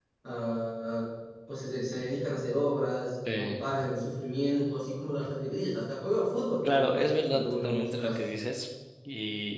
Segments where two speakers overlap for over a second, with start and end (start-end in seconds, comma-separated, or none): 6.7-8.2